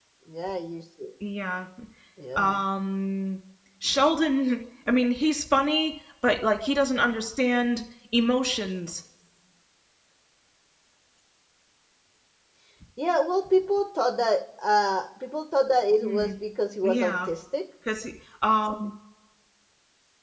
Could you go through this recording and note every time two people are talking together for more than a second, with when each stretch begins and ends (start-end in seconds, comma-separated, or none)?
none